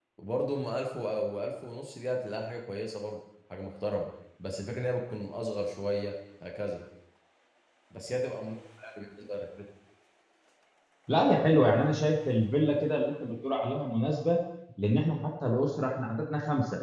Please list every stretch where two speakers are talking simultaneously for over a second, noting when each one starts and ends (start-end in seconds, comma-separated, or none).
none